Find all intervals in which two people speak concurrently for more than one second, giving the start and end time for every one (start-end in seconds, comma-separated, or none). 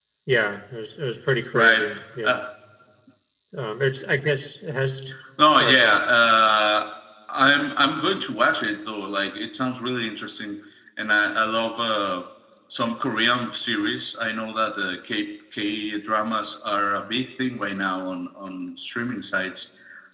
none